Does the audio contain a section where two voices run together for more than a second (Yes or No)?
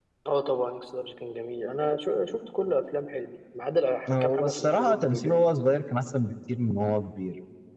Yes